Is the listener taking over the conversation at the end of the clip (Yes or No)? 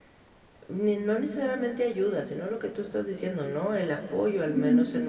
Yes